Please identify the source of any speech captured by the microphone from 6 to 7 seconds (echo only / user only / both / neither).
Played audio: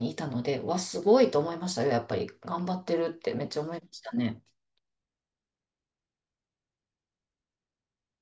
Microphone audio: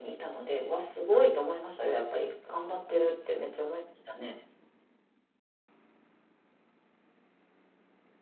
neither